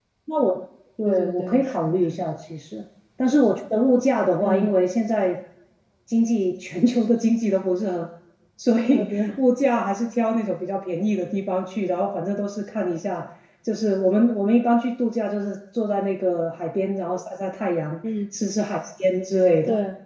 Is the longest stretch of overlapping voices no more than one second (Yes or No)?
No